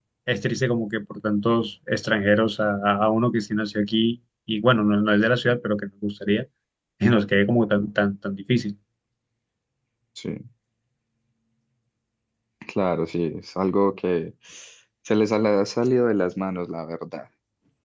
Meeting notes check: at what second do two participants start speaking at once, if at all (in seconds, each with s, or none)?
none